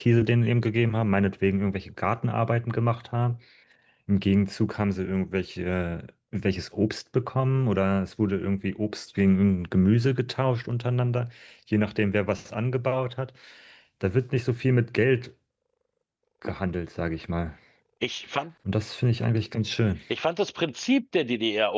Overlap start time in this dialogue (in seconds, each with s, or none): none